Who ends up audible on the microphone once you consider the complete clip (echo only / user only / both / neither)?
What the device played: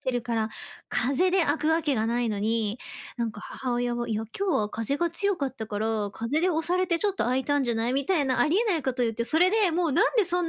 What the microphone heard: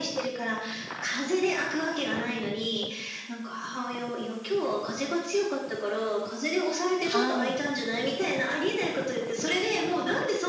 both